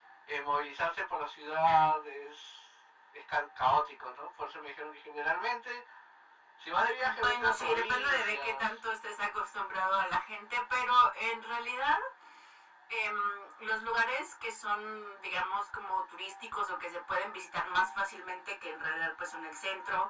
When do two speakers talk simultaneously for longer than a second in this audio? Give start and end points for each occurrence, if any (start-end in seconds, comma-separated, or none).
7.0-8.6